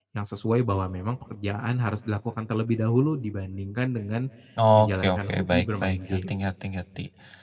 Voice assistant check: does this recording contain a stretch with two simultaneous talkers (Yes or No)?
Yes